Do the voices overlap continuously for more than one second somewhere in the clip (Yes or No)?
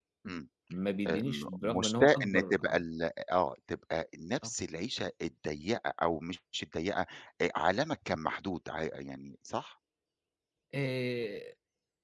Yes